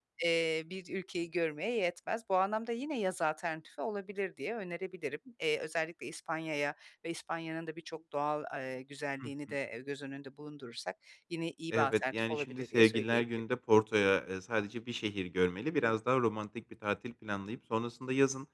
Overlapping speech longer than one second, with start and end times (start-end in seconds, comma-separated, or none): 11.7-13.2